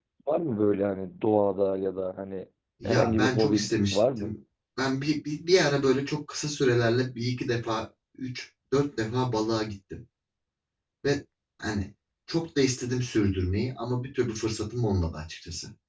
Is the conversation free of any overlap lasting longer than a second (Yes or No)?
No